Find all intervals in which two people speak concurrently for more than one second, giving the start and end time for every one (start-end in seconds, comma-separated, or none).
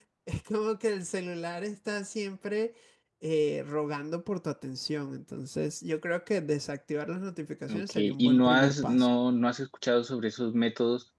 7.7-9.1